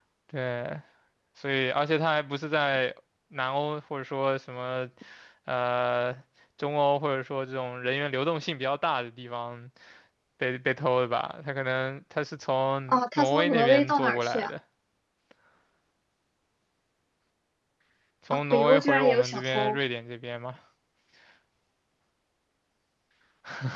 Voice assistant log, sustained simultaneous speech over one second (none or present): present